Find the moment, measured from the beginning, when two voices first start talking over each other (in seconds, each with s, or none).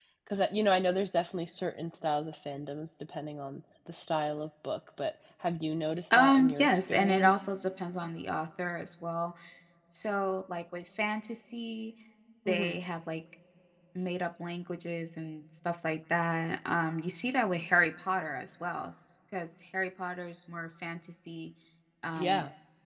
6.2 s